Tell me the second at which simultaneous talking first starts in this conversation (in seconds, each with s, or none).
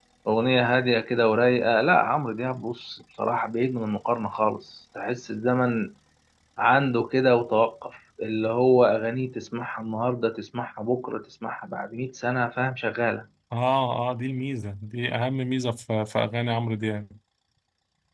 none